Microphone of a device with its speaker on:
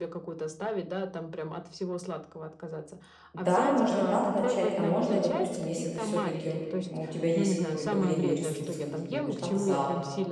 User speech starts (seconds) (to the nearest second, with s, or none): 3 s